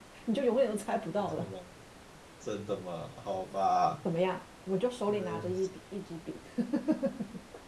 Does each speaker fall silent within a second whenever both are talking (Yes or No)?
Yes